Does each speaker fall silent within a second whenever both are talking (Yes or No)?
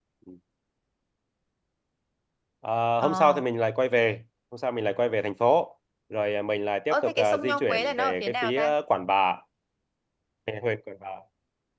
No